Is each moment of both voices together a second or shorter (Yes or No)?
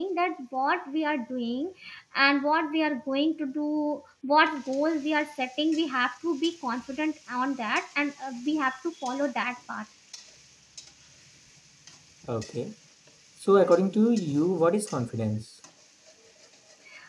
Yes